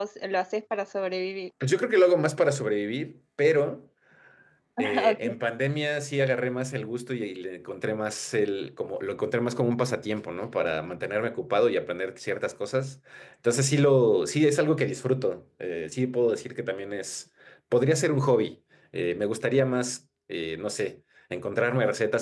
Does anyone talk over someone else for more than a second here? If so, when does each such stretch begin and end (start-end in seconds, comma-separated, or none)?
none